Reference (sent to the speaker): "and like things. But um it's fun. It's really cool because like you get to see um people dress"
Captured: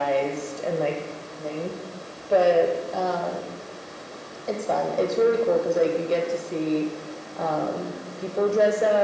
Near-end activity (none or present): none